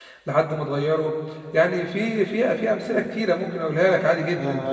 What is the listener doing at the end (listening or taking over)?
taking over